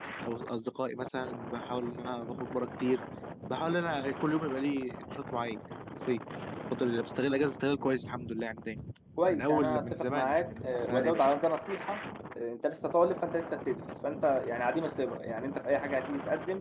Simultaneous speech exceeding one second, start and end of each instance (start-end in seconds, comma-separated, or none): 9.3-11.3